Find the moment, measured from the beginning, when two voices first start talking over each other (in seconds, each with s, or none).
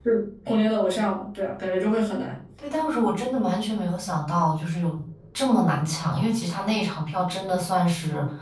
none